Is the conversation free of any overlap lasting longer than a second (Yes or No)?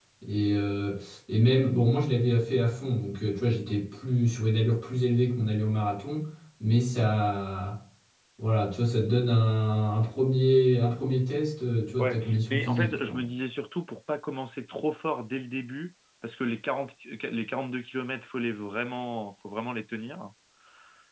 No